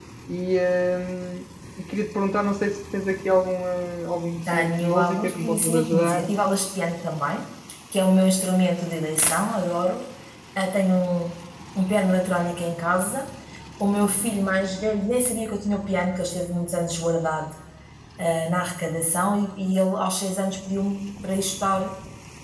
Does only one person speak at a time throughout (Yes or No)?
No